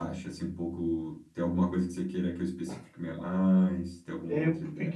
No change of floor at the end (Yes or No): No